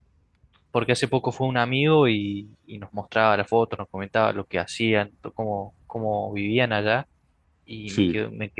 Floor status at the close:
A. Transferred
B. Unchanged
B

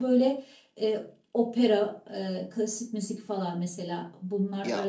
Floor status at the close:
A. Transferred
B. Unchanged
B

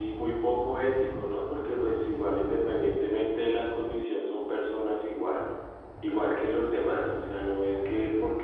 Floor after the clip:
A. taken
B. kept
B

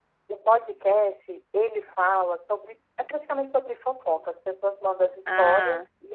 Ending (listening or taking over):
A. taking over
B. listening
B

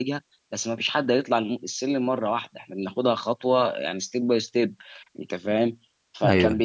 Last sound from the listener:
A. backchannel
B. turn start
A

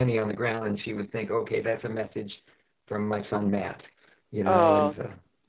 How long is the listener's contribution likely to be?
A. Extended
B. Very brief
A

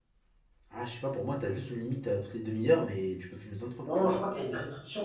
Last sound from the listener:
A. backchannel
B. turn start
B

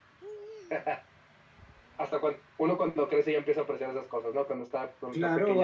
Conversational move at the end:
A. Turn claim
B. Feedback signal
A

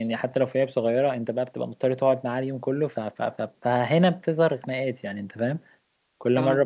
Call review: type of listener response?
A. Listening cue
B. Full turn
A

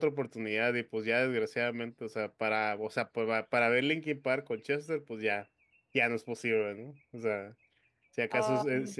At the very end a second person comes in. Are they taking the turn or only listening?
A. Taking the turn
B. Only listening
B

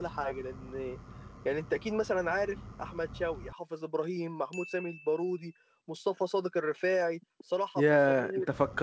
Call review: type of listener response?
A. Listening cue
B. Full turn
B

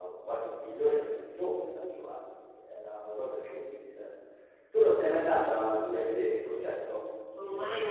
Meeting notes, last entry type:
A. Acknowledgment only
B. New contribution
B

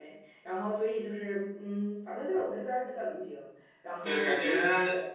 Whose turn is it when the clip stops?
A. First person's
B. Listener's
B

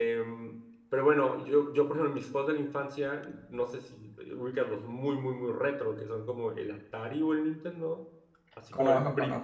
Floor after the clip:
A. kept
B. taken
A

